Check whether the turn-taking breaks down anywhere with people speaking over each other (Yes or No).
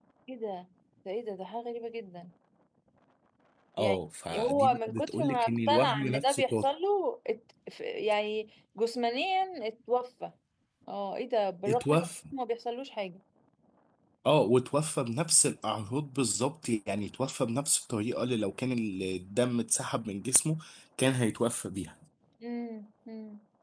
Yes